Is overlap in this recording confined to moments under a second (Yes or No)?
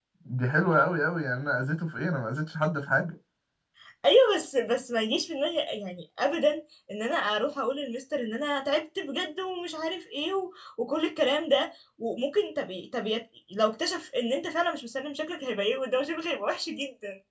Yes